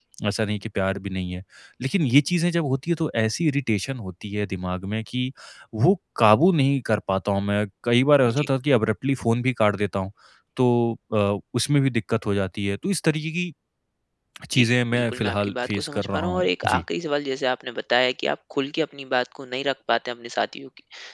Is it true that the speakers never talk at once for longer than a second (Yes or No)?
No